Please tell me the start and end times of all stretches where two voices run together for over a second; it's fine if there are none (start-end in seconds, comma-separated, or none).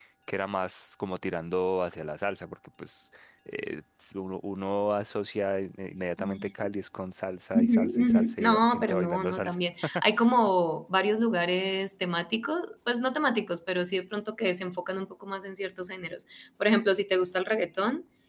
7.5-9.6